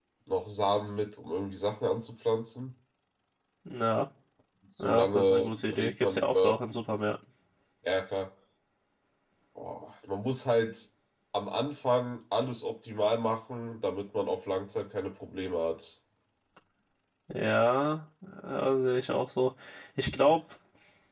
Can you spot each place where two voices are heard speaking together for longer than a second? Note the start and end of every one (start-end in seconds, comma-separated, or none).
4.8-6.5